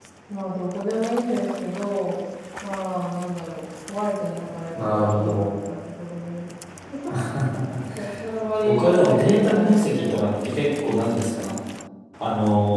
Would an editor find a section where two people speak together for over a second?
Yes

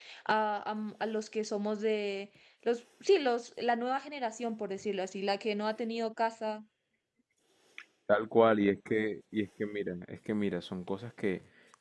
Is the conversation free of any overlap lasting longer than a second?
Yes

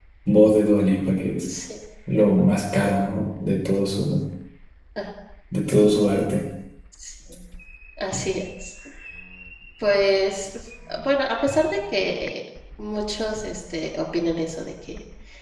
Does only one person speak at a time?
Yes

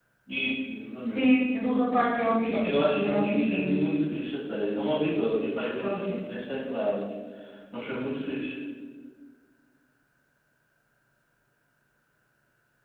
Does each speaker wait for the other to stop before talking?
No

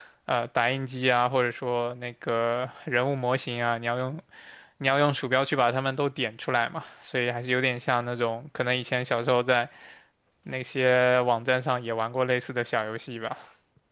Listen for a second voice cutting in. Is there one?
No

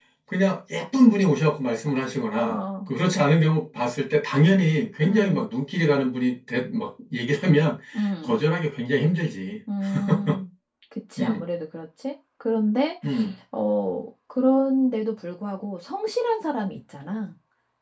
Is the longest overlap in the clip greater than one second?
No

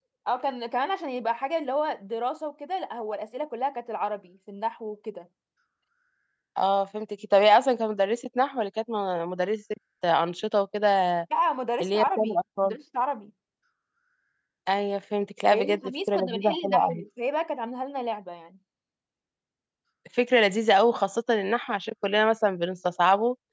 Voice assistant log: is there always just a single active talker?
No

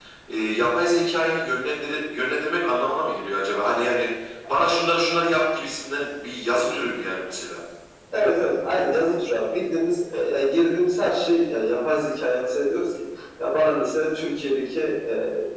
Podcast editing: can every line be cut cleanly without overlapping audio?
Yes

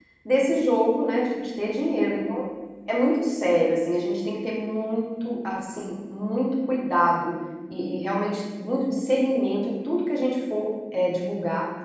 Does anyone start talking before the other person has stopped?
No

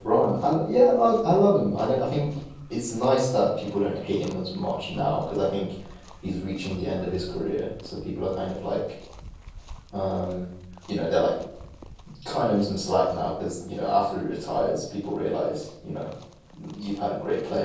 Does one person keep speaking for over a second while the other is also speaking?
No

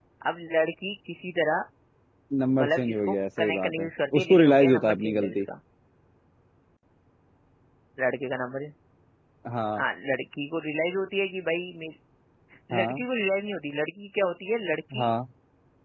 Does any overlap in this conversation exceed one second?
Yes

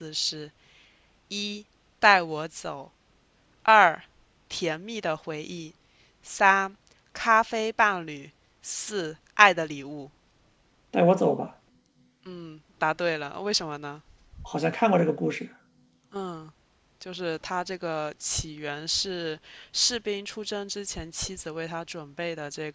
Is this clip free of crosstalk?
Yes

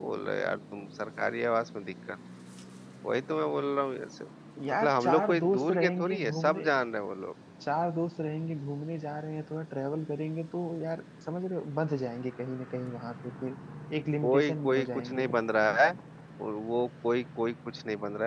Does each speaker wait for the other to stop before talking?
No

